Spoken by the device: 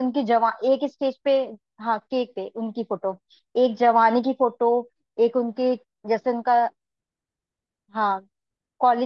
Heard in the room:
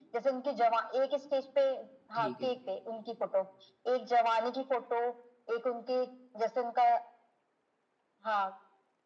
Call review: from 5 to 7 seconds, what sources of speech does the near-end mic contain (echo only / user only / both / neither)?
echo only